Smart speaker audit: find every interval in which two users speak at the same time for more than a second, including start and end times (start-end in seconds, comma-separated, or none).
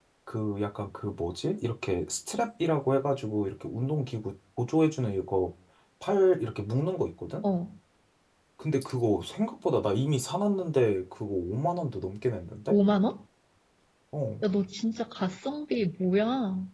none